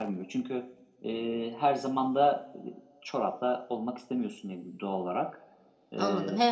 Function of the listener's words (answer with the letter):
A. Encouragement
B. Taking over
B